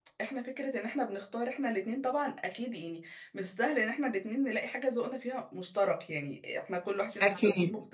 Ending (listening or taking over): listening